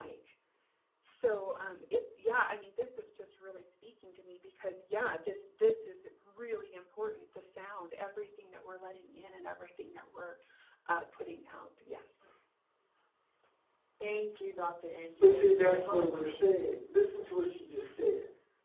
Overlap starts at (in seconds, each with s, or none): 15.2 s